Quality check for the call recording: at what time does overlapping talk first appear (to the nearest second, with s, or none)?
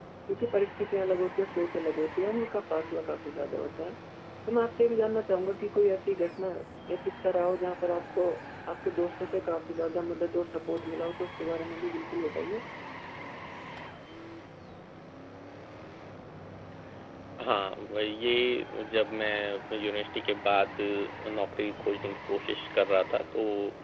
none